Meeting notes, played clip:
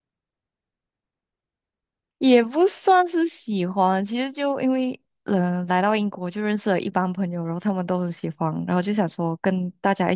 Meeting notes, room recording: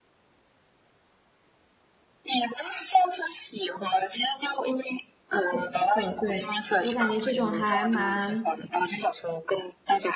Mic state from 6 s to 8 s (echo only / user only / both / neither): both